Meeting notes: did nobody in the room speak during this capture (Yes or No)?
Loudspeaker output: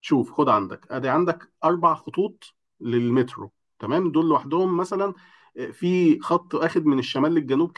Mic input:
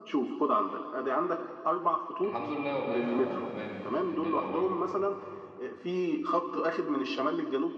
No